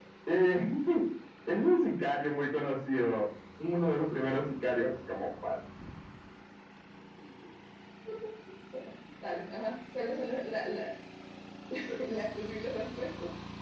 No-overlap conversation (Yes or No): Yes